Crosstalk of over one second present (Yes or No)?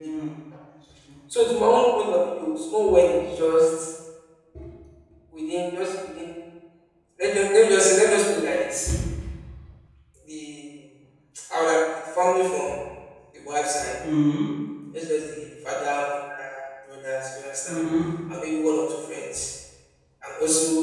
No